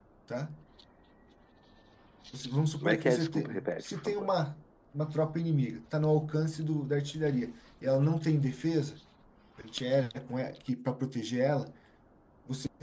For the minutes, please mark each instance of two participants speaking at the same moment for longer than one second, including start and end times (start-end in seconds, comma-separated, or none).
2.8-4.3